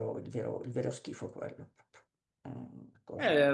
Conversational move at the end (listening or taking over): taking over